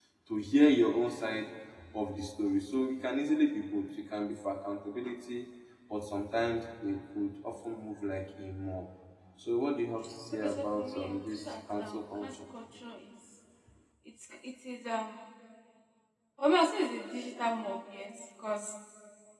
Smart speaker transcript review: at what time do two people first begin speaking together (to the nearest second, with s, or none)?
10 s